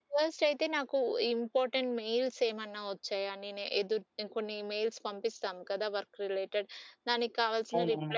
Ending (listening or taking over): listening